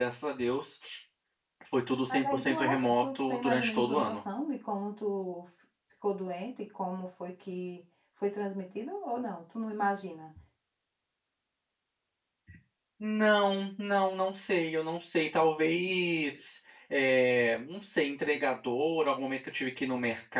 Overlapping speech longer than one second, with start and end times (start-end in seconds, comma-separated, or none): 2.1-4.2